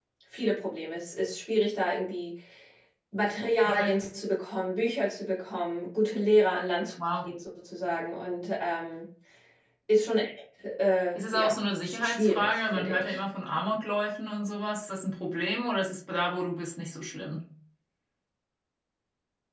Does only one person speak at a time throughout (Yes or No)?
No